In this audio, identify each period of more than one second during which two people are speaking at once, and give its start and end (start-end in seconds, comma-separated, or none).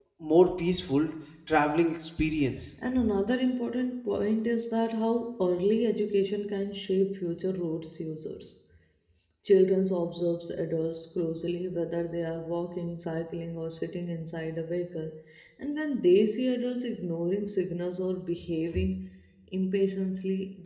none